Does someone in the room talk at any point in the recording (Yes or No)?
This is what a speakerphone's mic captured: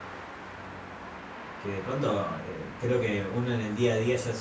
Yes